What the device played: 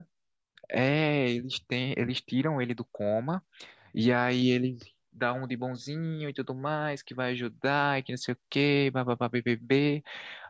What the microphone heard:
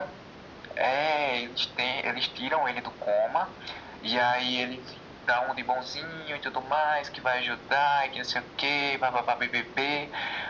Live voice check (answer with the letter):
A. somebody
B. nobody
B